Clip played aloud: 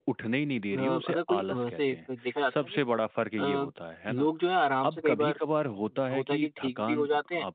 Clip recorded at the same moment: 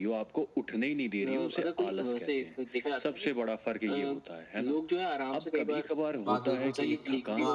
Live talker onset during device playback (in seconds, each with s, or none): 6.3 s